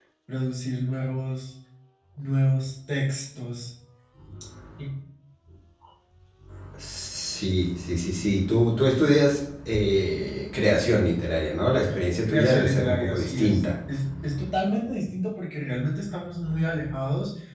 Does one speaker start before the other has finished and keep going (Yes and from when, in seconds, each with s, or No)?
Yes, from 12.3 s